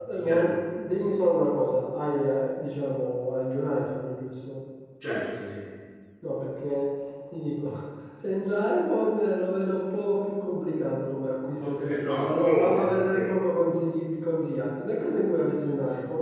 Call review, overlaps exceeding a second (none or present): present